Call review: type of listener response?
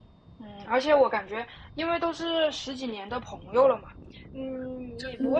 listening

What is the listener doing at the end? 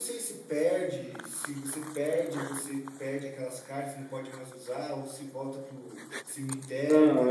taking over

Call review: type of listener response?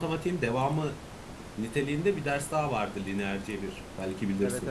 taking over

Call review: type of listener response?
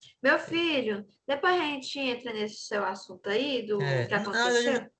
taking over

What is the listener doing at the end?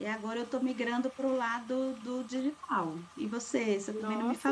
taking over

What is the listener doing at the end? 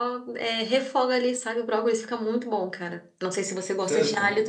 taking over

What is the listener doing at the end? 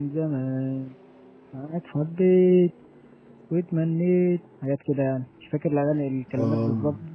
taking over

